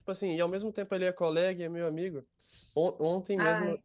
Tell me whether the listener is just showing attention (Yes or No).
Yes